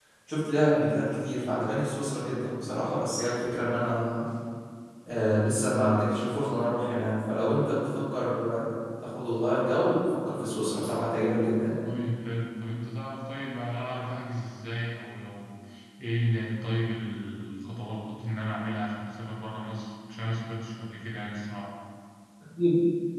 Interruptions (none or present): none